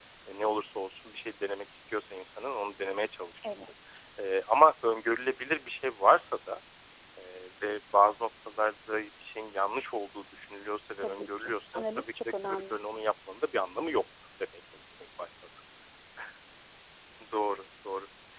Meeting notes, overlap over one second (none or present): present